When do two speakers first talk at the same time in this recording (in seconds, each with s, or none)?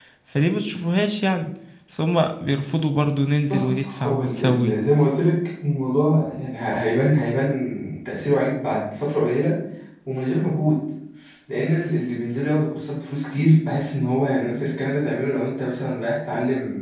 3.5 s